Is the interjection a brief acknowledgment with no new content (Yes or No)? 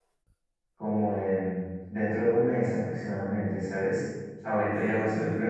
Yes